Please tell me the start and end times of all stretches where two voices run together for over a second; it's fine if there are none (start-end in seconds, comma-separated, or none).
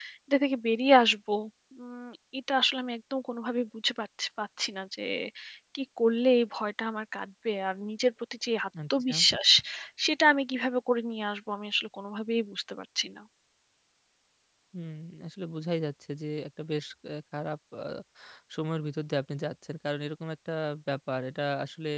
none